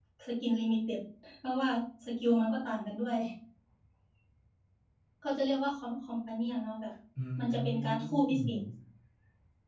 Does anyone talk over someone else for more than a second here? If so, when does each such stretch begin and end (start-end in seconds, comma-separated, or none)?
7.4-8.6